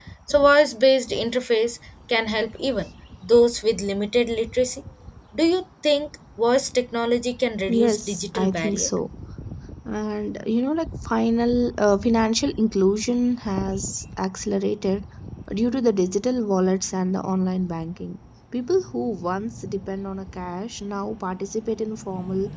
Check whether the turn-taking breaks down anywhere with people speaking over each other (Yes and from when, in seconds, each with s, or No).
Yes, from 7.7 s